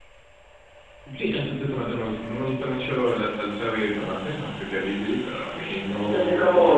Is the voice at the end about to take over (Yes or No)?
Yes